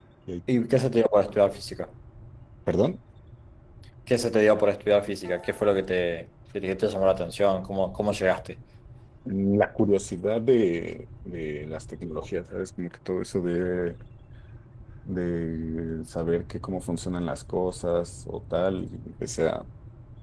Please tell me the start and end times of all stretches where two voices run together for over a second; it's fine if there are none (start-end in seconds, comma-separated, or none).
none